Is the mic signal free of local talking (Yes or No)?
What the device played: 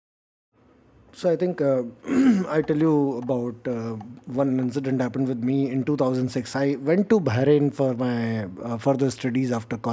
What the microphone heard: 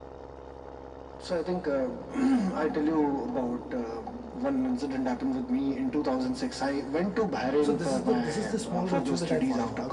No